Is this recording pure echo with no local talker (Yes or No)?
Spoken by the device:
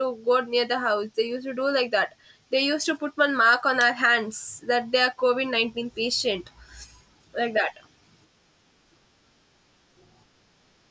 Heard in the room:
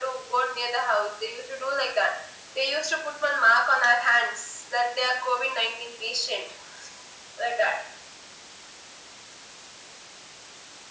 Yes